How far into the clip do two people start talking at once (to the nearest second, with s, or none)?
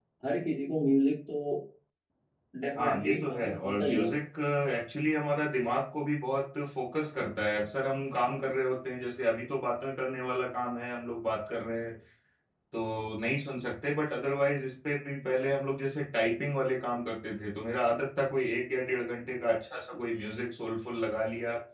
3 s